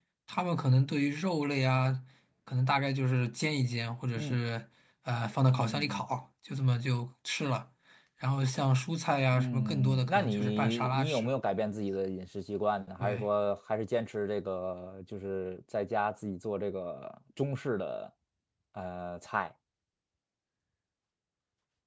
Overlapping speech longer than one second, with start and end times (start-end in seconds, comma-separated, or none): 9.3-11.3